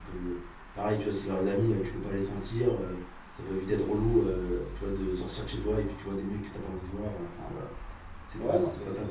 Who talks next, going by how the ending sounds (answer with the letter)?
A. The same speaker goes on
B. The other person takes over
B